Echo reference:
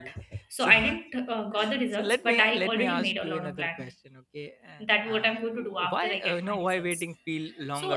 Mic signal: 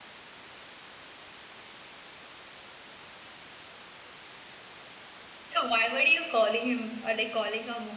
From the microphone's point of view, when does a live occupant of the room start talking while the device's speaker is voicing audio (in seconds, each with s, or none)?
5.5 s